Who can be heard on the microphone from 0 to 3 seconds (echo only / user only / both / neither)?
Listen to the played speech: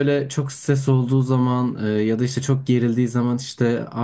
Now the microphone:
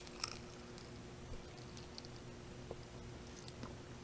neither